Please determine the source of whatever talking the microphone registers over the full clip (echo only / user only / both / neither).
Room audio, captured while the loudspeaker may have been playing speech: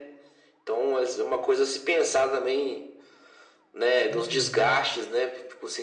both